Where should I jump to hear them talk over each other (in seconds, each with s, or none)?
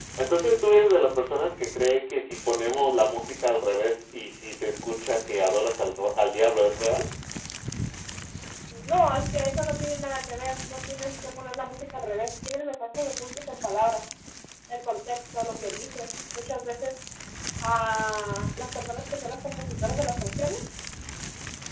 none